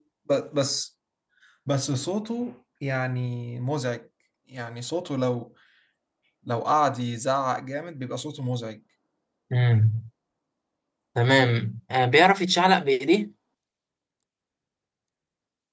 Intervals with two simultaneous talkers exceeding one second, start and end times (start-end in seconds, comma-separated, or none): none